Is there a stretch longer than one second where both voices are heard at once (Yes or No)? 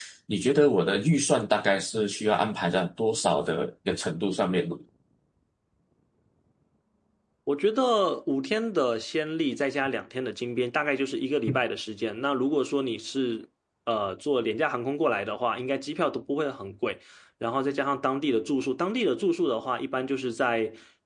No